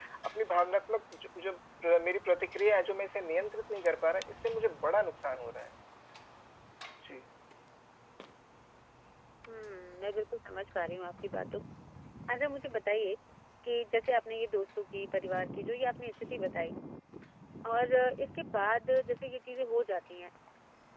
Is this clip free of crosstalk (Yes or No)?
Yes